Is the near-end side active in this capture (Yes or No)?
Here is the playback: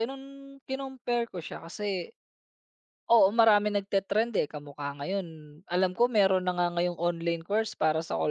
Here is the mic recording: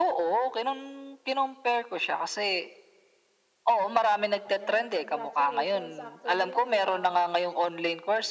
Yes